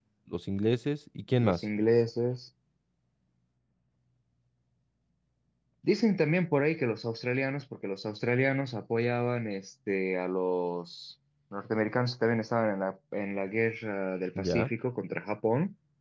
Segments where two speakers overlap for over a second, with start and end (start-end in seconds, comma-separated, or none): none